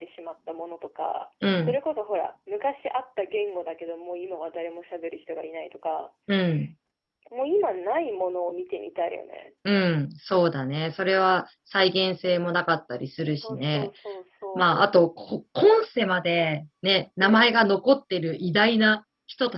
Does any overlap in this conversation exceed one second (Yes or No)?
No